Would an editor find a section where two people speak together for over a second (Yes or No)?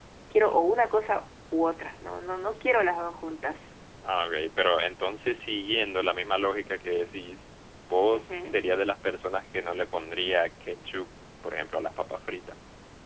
No